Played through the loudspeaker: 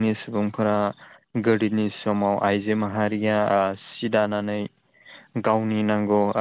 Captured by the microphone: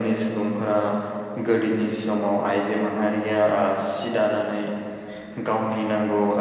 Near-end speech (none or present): none